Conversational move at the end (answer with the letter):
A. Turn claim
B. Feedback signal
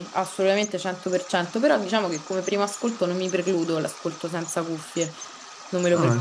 A